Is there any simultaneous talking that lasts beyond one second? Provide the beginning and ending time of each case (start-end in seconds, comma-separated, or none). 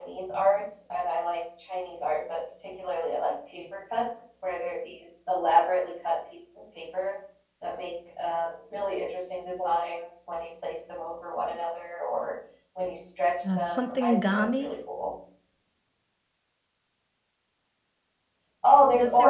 13.4-14.8